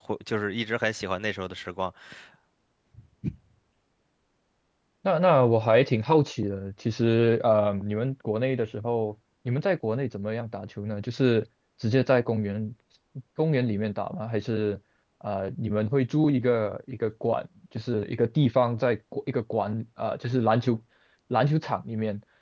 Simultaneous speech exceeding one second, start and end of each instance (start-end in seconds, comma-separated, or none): none